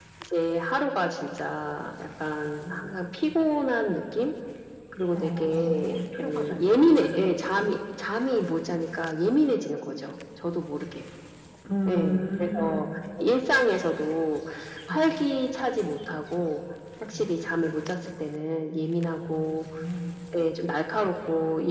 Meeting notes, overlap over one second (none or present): present